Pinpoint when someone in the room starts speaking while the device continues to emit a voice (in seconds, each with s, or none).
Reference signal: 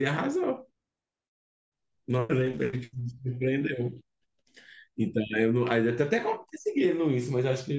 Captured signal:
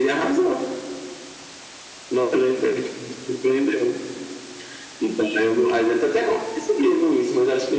none